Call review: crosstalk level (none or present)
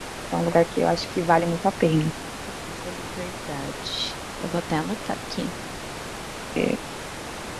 none